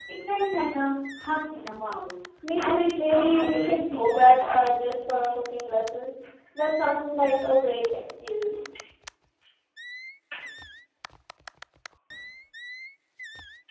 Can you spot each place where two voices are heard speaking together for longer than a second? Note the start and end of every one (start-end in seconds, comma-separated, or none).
2.6-4.6